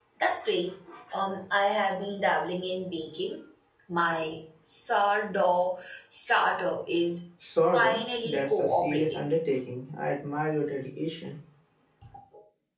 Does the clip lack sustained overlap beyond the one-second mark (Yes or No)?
No